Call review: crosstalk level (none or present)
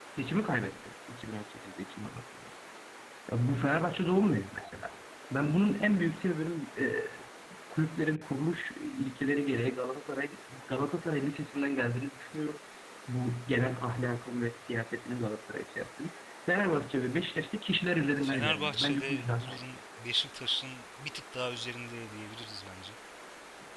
present